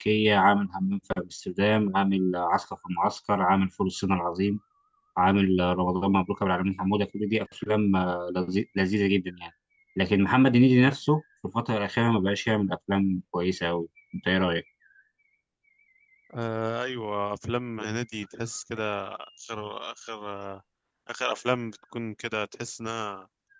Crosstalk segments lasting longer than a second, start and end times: none

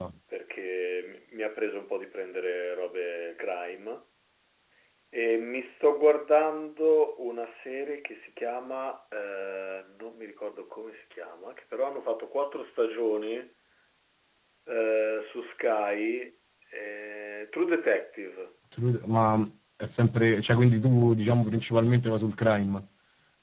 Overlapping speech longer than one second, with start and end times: none

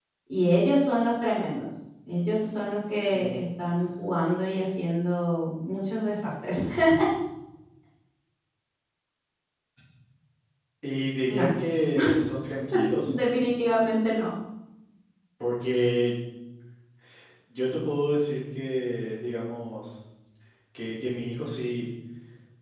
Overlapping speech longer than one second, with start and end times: none

